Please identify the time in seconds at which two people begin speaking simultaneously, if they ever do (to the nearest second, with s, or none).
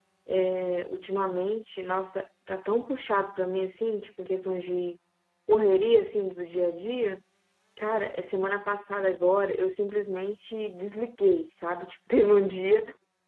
none